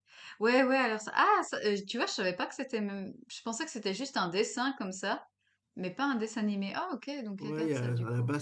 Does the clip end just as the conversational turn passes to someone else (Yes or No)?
Yes